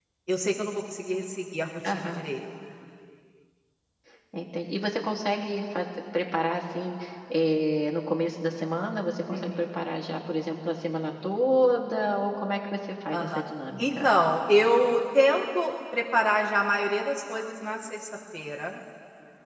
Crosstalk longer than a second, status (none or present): none